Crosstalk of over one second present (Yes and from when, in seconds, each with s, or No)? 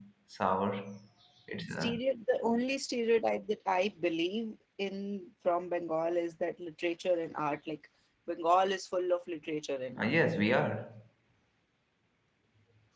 No